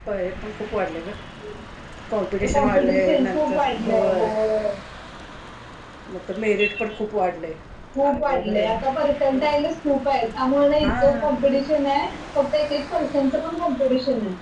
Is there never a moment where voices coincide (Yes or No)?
No